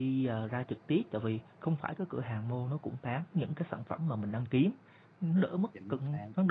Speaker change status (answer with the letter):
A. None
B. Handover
A